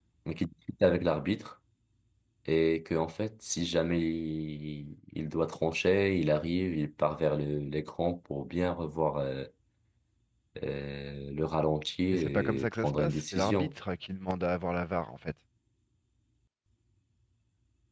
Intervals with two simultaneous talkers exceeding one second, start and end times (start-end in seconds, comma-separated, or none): 12.1-13.7